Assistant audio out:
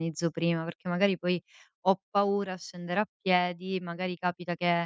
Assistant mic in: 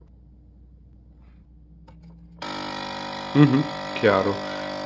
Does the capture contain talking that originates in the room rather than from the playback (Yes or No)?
Yes